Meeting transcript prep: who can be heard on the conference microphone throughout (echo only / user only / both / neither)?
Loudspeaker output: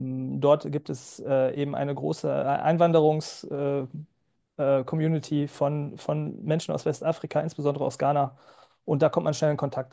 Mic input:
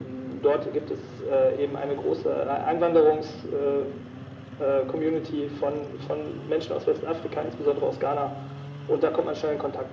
echo only